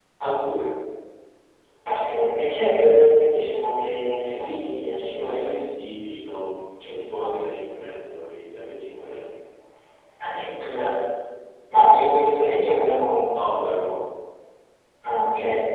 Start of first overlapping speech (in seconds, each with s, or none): 4.4 s